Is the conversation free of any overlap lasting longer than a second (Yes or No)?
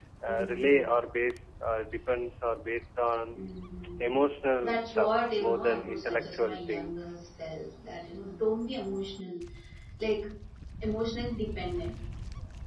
No